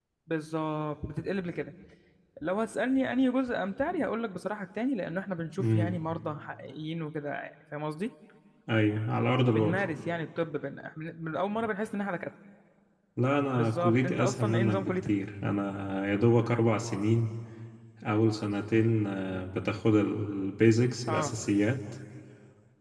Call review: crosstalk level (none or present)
present